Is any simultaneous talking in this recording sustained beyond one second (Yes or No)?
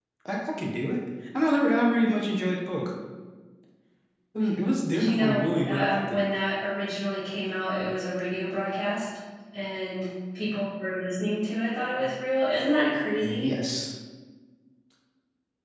Yes